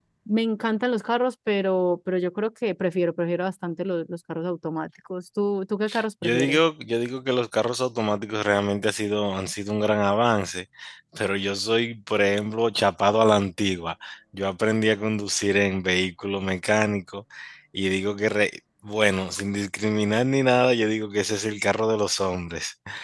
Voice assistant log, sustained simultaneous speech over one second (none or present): none